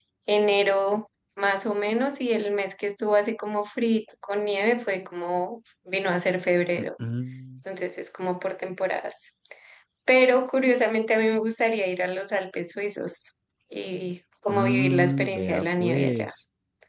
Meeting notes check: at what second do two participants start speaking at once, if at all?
14.5 s

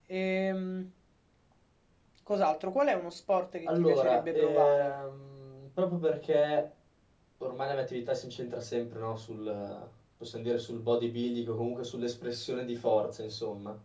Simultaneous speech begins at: 3.7 s

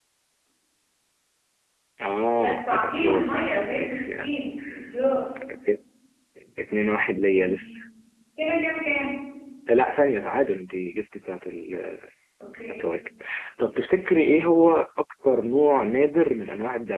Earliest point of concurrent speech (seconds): 2.4 s

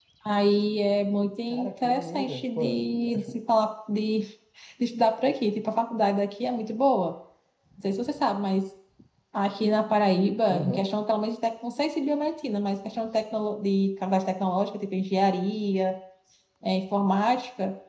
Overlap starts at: 1.5 s

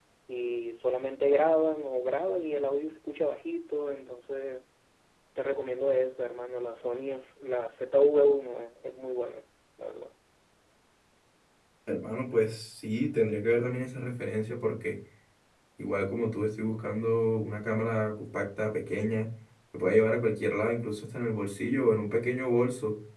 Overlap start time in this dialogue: none

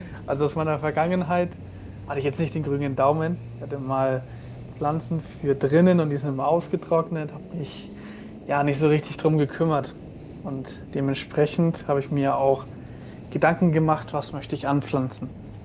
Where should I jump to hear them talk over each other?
none

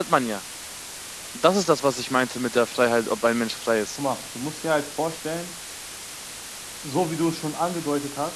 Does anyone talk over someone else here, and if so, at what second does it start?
none

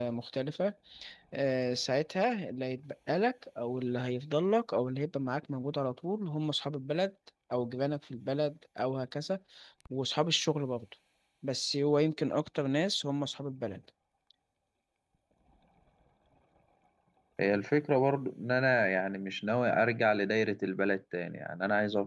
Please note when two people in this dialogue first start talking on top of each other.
none

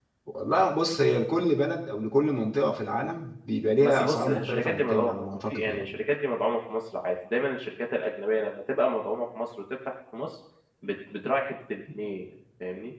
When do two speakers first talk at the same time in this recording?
3.8 s

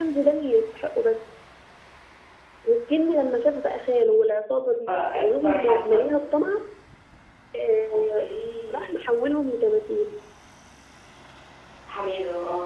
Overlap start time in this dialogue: 4.9 s

